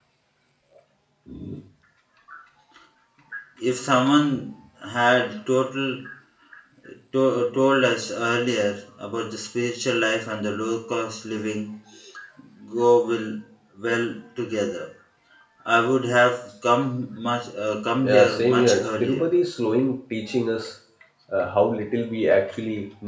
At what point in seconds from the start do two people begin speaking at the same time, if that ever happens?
18.0 s

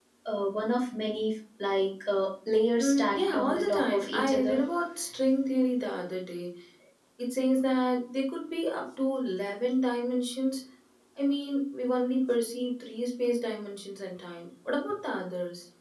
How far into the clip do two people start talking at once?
2.8 s

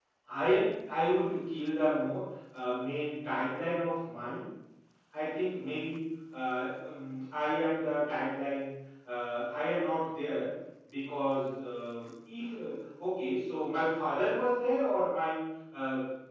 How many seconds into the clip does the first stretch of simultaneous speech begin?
none

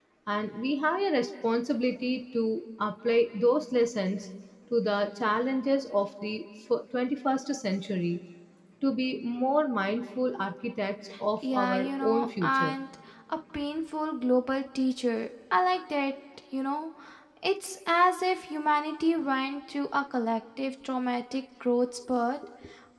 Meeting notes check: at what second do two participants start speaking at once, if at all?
11.4 s

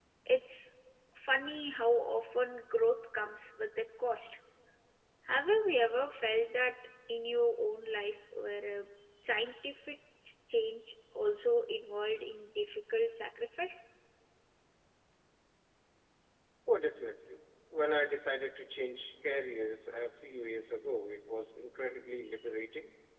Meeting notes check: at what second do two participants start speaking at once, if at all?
none

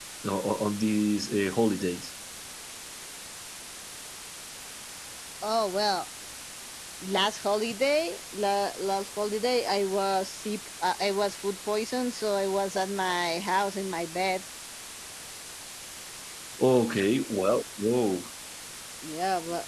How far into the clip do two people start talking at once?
none

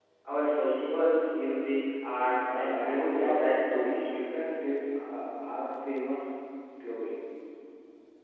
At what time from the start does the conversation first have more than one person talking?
2.5 s

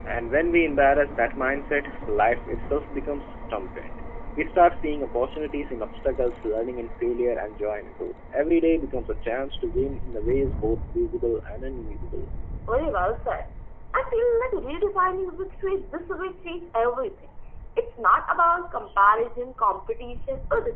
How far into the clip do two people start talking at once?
none

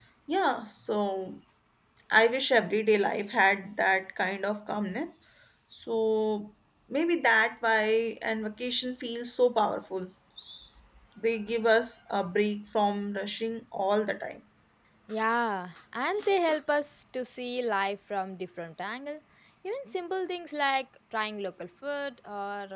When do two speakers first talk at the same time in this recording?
none

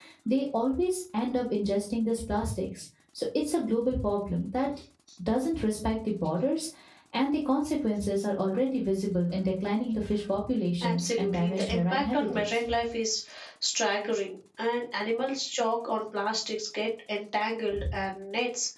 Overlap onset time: 10.8 s

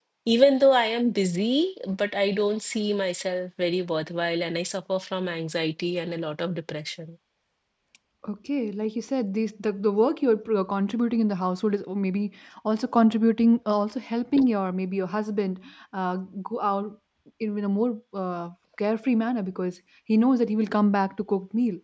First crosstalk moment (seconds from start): none

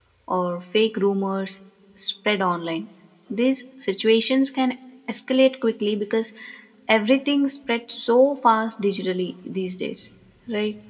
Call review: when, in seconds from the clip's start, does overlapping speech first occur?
none

